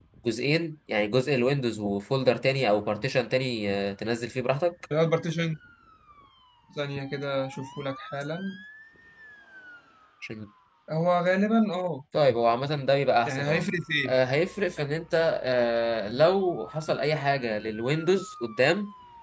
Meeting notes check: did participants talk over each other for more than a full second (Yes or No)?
No